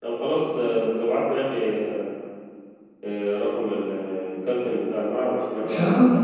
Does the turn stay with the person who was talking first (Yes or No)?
Yes